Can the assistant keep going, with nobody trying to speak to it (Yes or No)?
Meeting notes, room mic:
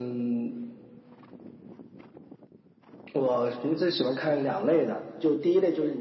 Yes